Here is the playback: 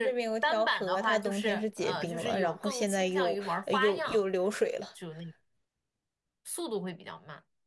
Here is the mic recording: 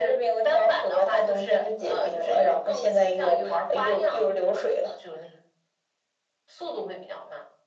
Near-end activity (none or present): none